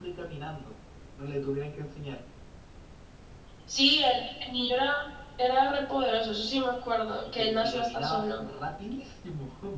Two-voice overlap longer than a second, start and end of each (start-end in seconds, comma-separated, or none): 7.2-8.4